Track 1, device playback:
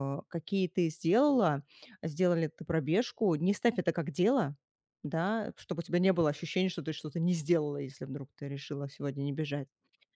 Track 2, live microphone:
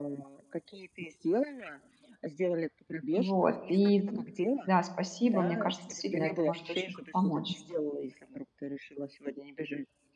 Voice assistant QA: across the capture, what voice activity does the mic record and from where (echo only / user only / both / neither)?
both